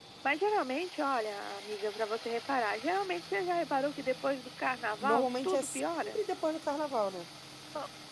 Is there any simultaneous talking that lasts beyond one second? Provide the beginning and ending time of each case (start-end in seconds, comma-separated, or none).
5.0-6.2